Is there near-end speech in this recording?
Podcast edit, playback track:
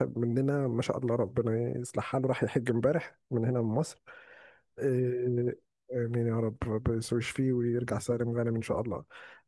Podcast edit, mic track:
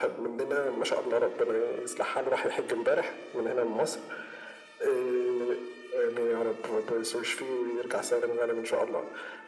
No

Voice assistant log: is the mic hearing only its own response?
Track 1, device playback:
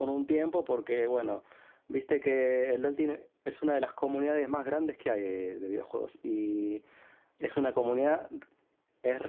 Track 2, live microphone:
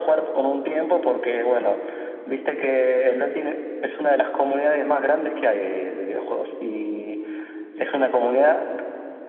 Yes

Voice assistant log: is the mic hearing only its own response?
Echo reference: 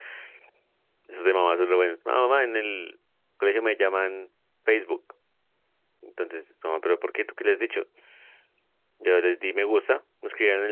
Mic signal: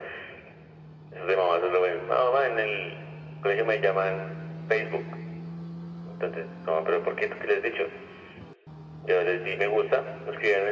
Yes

